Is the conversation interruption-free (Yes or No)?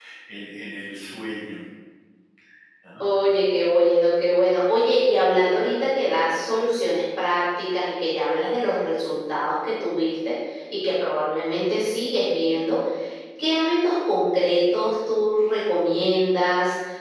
Yes